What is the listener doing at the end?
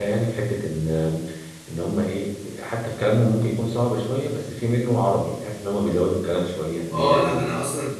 taking over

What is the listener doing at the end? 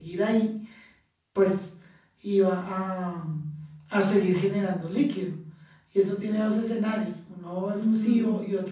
listening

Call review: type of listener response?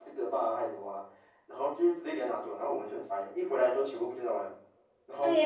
taking over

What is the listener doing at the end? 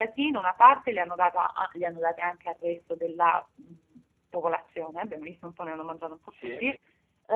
listening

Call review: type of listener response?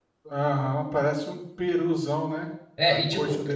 taking over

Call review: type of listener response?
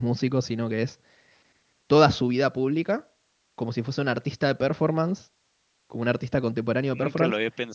taking over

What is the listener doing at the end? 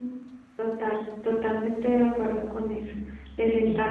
listening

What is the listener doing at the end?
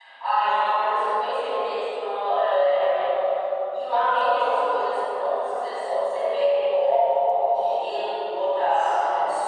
taking over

